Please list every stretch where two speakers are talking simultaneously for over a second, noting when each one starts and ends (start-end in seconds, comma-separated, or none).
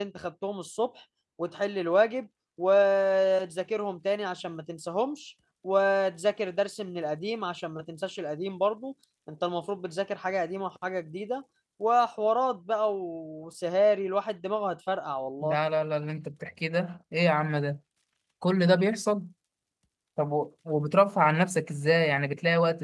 none